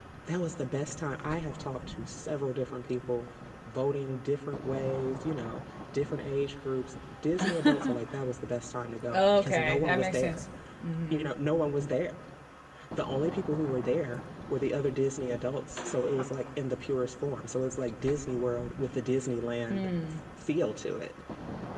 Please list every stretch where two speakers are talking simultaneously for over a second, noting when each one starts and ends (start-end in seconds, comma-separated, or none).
9.1-10.3